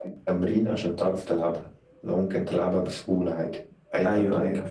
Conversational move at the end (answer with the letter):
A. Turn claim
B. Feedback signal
A